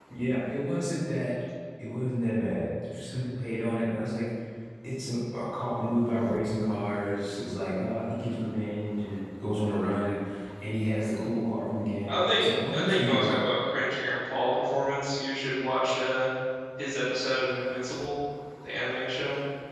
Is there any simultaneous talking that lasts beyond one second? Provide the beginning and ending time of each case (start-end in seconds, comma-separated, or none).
12.1-13.3